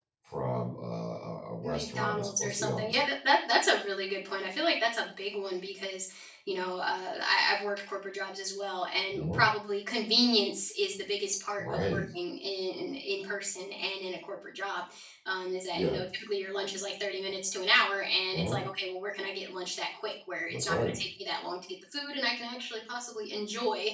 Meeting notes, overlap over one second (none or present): present